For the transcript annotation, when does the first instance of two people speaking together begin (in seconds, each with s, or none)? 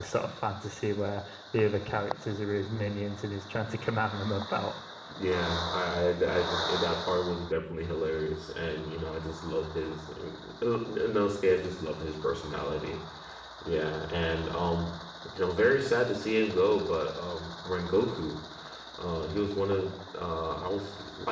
none